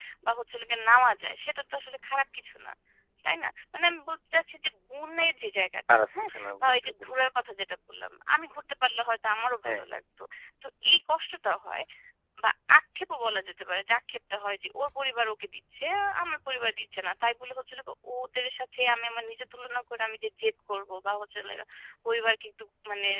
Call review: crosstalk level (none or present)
present